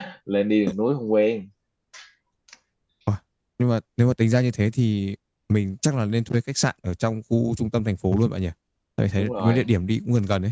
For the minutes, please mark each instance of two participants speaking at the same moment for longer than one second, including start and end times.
none

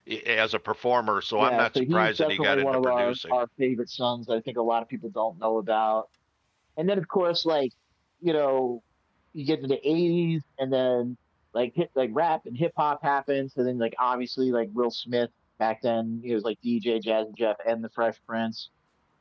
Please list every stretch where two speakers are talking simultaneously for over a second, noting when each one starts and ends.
1.4-3.3

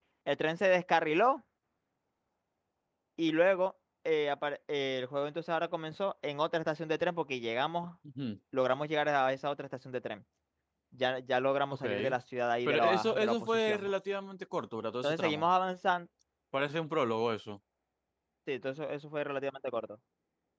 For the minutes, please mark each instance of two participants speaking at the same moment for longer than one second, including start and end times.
12.7-13.9

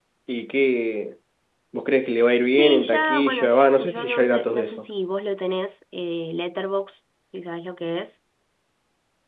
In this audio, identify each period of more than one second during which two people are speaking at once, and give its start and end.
2.6-4.8

